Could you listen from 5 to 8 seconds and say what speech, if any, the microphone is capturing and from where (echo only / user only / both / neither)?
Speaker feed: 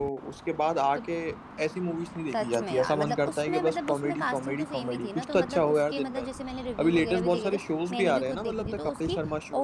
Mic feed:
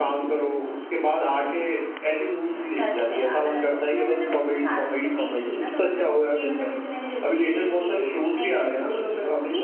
echo only